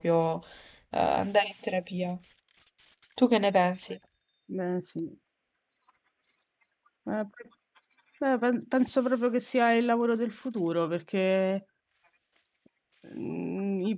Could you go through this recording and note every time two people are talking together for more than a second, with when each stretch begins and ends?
none

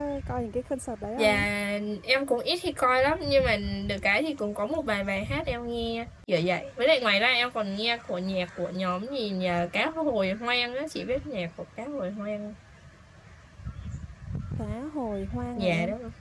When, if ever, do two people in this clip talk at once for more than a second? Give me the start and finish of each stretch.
none

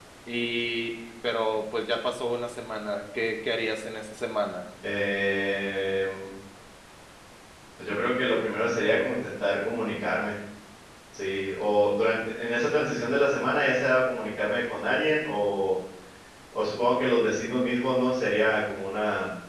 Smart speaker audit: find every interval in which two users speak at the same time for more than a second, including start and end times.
none

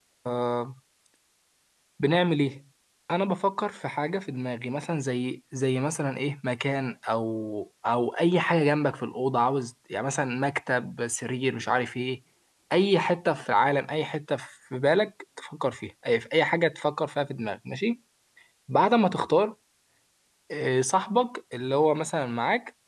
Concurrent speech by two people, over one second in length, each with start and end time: none

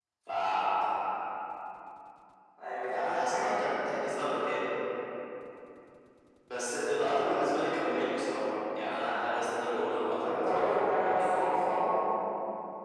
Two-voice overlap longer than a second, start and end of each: 10.2-11.5

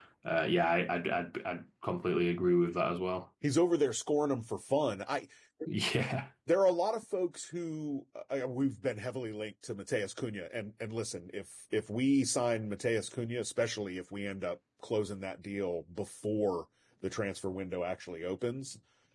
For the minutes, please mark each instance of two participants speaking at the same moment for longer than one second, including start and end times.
none

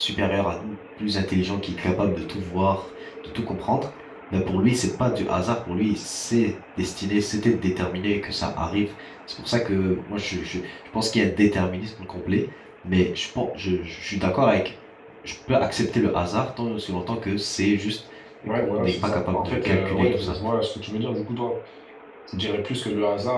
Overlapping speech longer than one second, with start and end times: 18.6-20.4

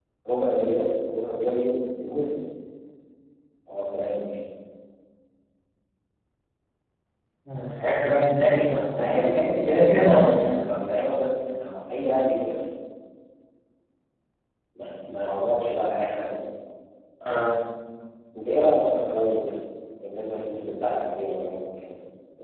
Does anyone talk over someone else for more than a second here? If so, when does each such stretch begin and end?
9.0-10.6

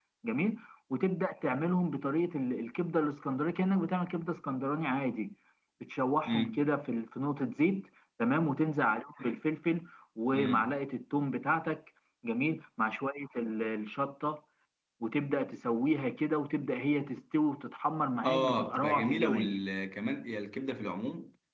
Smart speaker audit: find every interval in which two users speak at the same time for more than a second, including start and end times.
18.2-19.5

